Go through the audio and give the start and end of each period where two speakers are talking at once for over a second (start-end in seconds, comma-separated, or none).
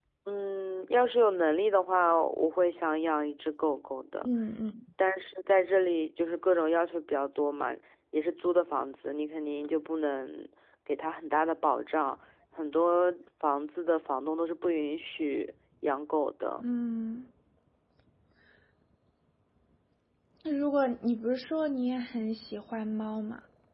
none